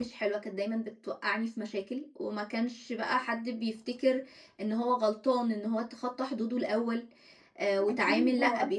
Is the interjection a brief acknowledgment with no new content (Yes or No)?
No